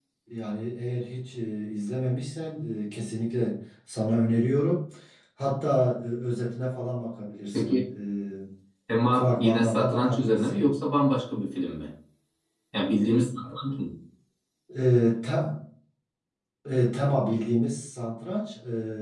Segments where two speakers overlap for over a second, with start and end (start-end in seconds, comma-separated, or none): 9.1-10.7